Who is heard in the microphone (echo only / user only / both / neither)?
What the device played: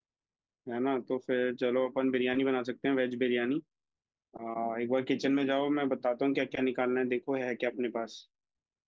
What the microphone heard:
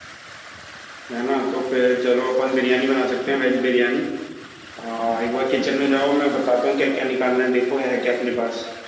echo only